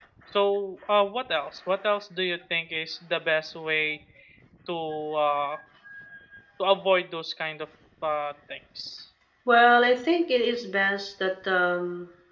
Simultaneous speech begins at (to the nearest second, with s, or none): none